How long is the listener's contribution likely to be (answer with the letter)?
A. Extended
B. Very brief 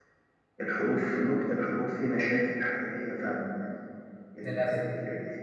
B